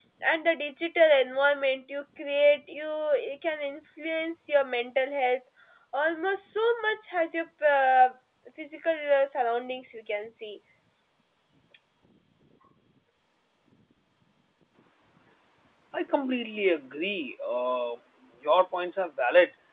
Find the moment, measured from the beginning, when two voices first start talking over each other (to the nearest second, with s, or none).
none